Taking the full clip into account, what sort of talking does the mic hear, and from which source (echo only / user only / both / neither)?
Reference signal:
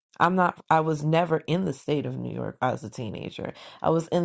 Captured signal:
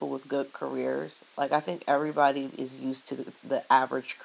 user only